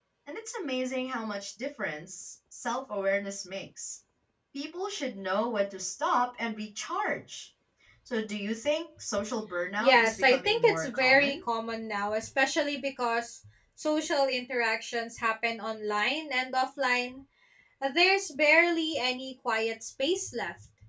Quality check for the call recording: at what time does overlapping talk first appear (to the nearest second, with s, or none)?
10 s